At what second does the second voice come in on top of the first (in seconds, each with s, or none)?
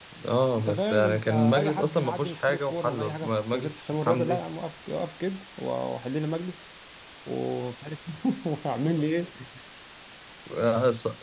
0.6 s